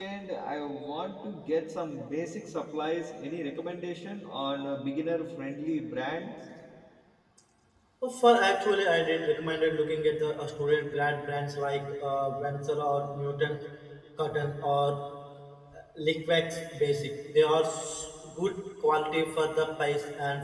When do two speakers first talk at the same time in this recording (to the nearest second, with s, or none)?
none